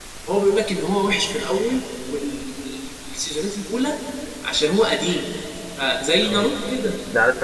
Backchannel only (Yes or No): No